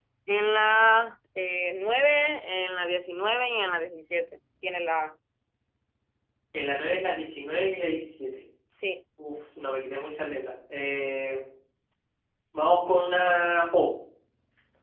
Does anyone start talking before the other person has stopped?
No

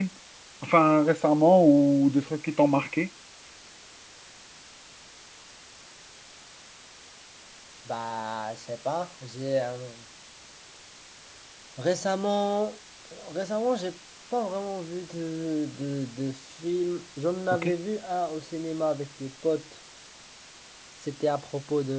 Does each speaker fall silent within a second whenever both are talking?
Yes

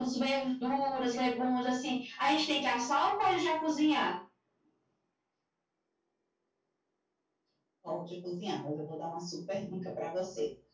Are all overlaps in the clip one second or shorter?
Yes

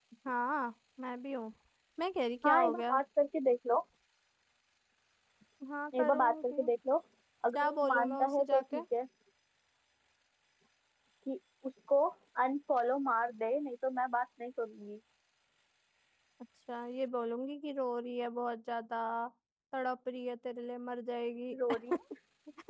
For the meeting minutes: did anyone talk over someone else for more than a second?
Yes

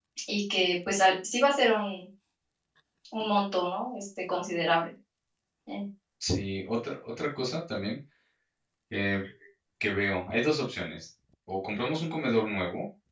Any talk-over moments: No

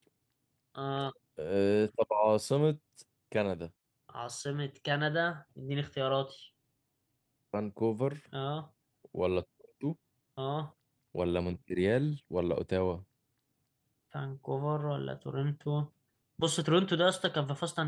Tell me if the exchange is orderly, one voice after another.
Yes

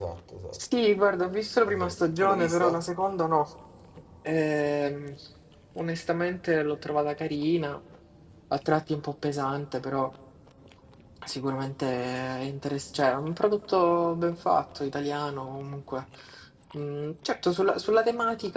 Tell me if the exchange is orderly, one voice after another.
No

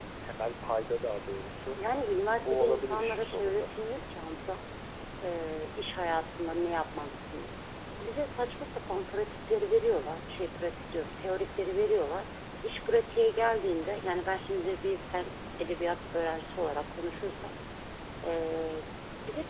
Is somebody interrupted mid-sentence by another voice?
Yes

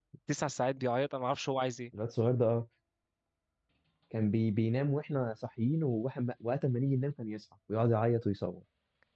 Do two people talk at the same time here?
No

